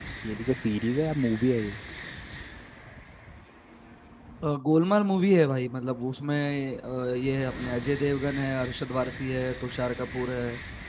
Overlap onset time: none

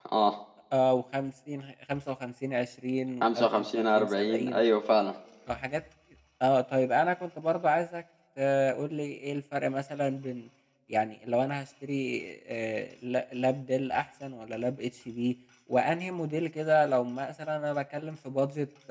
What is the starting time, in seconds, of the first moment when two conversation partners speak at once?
3.2 s

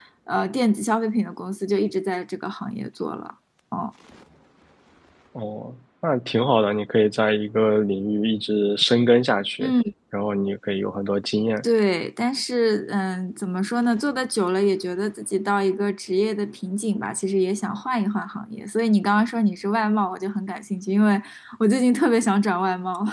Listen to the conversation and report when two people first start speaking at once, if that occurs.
none

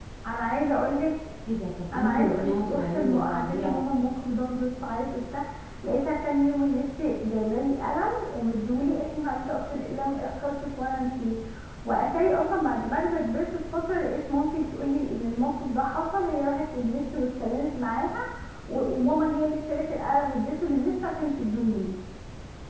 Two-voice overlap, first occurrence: 1.9 s

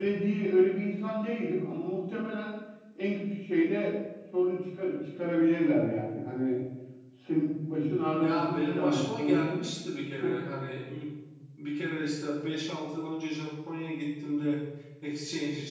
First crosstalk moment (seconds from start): 8.2 s

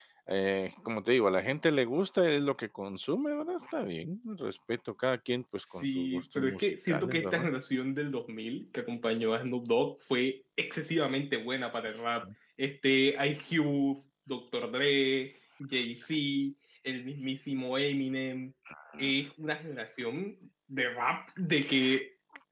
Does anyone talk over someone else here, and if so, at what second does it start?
5.6 s

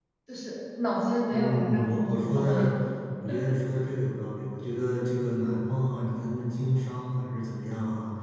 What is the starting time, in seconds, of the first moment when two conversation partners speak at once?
1.3 s

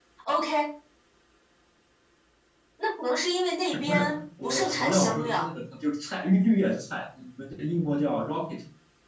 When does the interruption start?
3.7 s

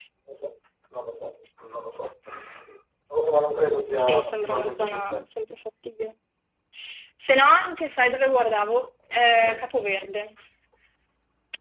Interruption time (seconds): 4.0 s

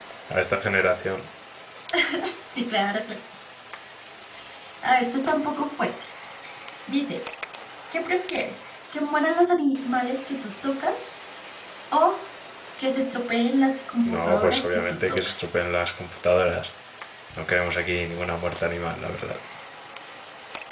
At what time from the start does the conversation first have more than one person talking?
14.0 s

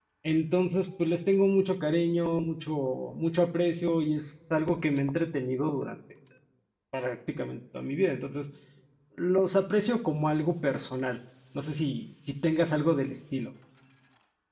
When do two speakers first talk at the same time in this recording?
none

